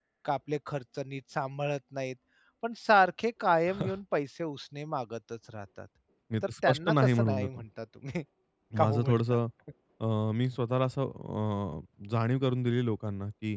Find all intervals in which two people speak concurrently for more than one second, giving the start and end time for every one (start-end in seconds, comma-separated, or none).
6.4-7.6